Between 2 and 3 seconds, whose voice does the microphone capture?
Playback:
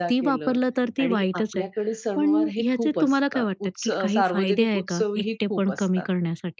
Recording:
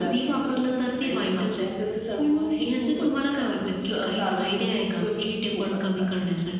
echo only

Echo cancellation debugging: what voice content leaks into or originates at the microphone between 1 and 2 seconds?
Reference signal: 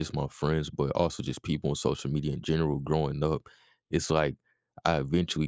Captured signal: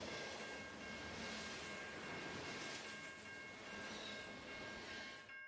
neither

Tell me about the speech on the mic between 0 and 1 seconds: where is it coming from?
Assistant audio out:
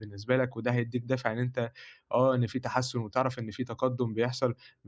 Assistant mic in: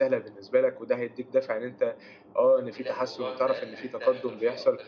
echo only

